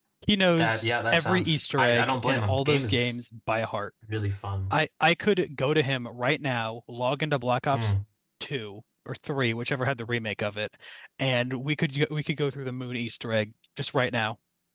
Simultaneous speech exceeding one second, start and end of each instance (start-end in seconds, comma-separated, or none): 0.5-3.1